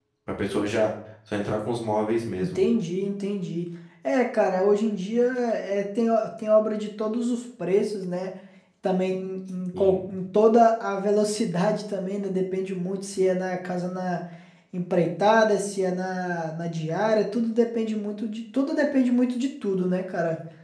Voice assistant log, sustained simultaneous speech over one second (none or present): none